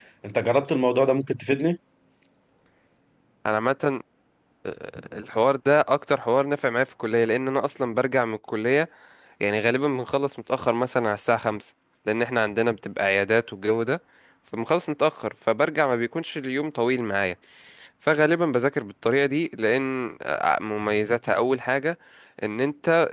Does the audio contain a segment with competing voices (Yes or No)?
No